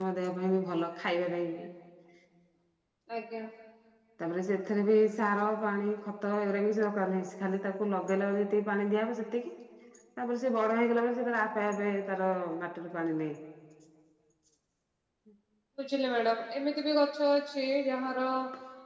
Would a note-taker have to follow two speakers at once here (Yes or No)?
No